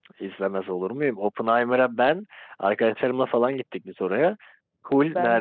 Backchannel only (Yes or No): Yes